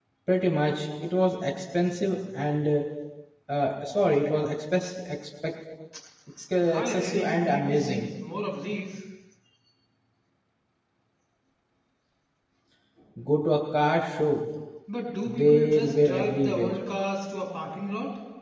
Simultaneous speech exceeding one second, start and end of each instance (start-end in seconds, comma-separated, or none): 6.7-8.0, 15.3-16.7